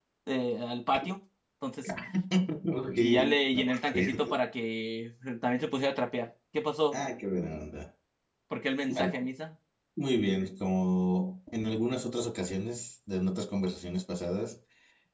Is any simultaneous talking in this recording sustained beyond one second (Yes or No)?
Yes